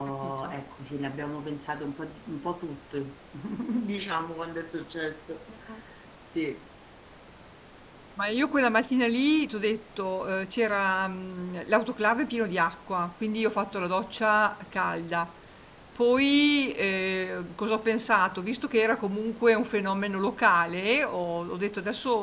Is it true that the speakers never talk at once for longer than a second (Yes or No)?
Yes